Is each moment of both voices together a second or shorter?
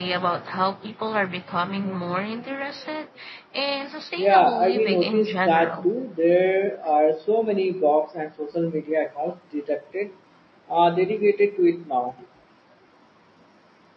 No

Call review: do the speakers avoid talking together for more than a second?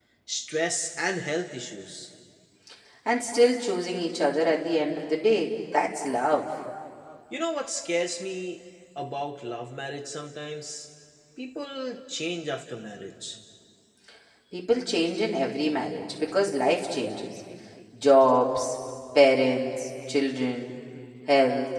Yes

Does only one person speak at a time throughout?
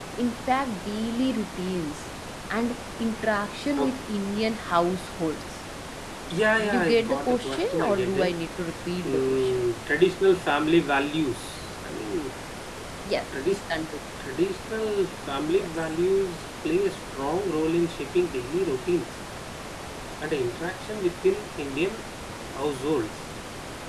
No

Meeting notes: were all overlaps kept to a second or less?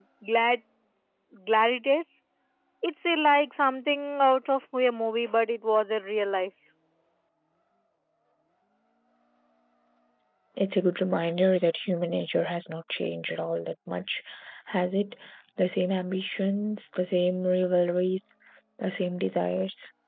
Yes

